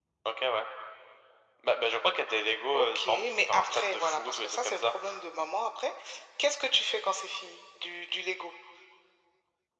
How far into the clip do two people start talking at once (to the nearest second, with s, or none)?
3 s